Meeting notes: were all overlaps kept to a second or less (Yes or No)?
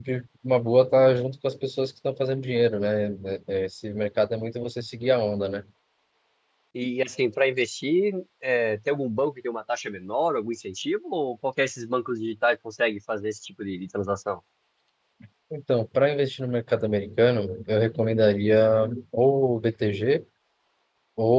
Yes